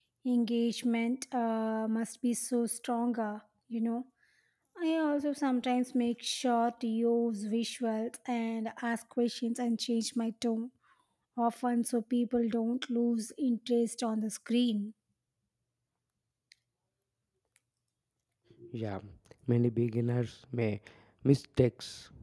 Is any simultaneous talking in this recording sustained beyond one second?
No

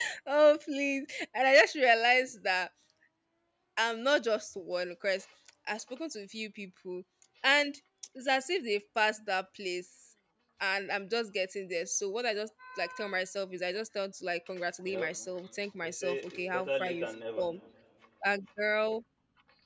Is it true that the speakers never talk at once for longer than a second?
No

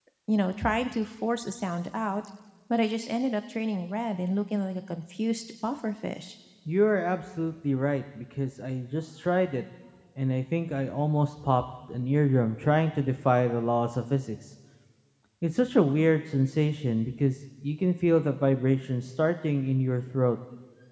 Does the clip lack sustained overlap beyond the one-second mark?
Yes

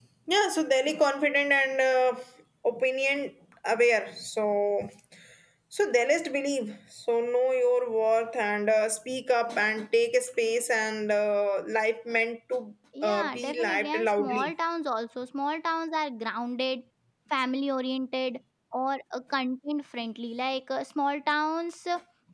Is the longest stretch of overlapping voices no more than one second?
No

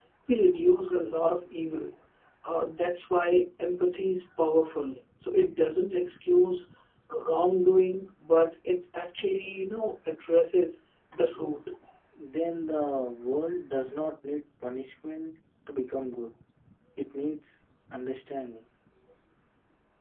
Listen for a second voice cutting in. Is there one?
No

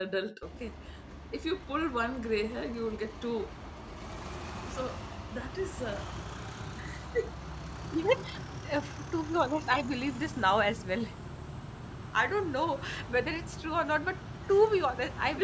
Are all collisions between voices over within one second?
Yes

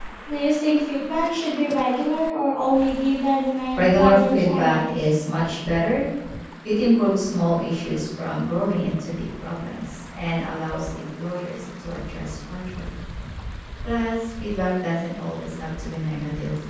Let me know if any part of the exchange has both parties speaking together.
Yes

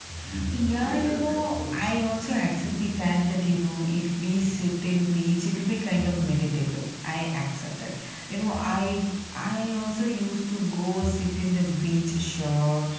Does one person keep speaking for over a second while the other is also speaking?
Yes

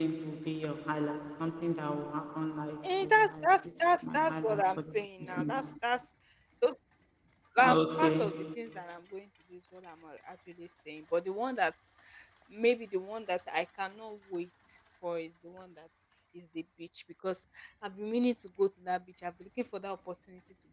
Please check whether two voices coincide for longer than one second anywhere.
Yes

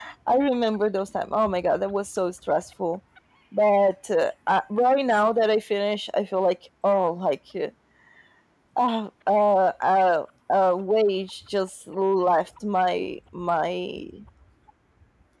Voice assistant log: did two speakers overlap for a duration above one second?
No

